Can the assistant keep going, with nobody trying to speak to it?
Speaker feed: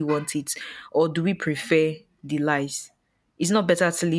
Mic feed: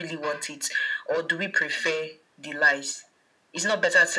Yes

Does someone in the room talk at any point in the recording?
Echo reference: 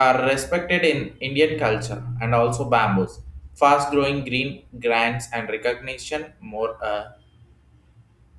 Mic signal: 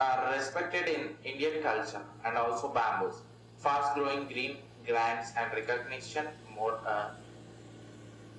No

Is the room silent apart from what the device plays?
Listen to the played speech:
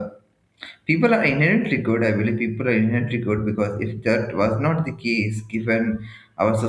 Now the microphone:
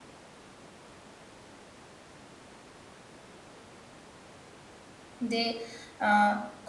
No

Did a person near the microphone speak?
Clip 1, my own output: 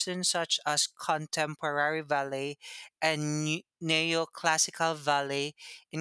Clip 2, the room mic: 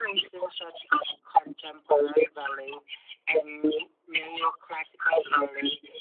No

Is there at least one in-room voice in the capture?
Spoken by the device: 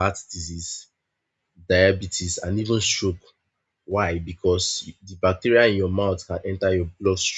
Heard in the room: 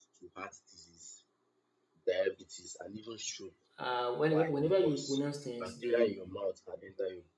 Yes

